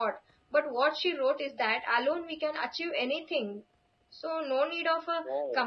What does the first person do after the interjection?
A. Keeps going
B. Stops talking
A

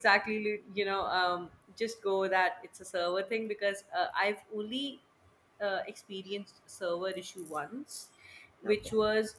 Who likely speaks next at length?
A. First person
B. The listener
A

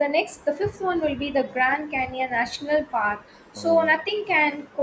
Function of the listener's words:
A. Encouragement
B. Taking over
A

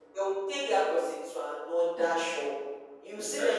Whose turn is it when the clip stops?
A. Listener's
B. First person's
B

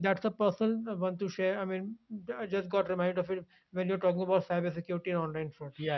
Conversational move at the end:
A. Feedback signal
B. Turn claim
B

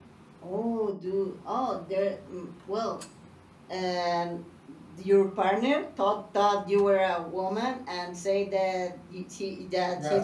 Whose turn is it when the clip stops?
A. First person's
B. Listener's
A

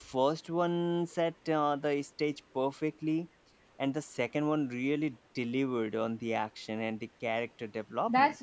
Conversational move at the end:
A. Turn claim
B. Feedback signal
A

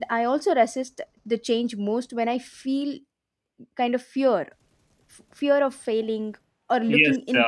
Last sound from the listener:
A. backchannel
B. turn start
B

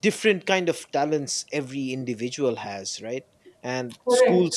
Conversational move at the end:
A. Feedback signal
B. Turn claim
A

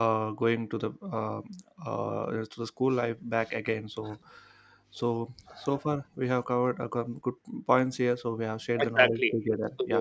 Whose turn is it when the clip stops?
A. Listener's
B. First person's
A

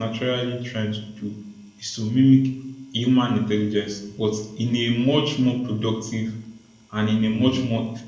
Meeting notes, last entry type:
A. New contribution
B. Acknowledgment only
B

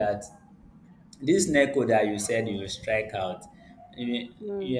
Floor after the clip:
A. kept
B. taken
A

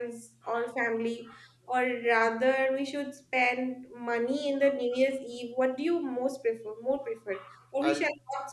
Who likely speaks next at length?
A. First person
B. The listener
A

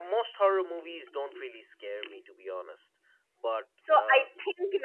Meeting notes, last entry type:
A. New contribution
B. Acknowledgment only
A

